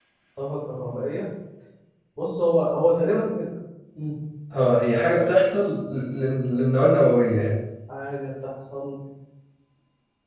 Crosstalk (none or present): none